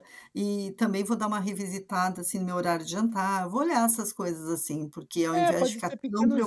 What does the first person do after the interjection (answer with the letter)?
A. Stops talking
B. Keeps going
A